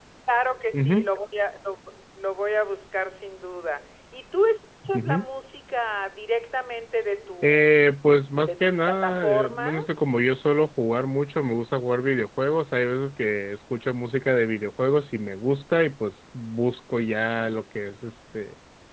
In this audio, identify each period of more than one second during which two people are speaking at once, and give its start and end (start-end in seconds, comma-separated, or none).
8.4-10.1